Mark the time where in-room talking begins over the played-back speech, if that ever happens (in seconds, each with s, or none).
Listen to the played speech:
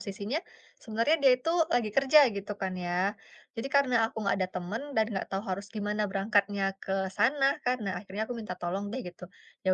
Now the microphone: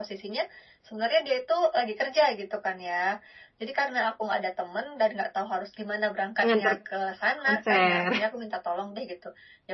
6.4 s